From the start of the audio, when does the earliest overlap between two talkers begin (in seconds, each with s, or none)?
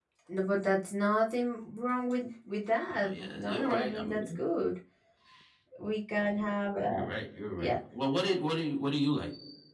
2.9 s